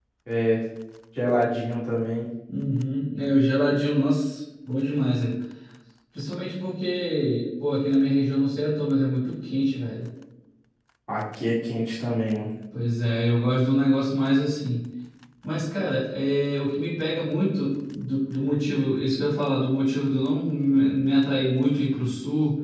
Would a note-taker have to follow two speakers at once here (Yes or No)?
No